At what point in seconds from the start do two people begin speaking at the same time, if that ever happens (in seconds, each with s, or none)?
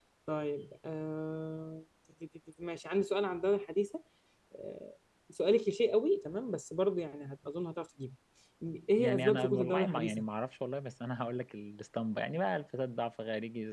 9.0 s